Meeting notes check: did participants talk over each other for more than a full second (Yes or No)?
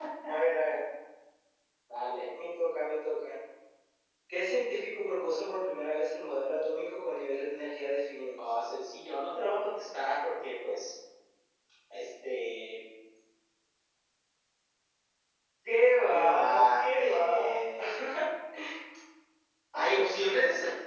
Yes